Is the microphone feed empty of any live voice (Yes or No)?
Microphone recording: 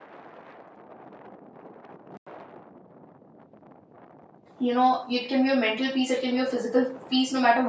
No